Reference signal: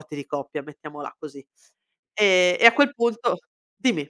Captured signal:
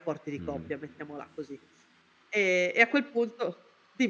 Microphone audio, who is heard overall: both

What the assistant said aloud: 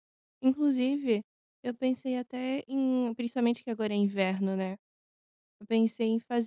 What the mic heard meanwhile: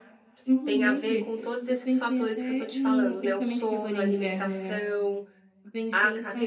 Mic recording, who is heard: both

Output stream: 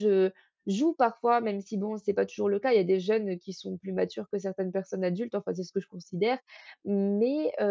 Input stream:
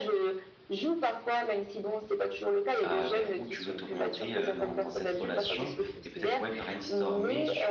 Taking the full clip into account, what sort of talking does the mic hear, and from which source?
both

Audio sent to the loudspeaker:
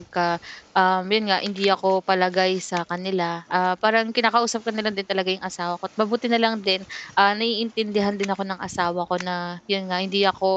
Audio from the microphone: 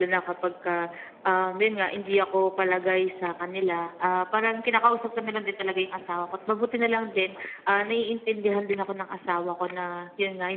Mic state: echo only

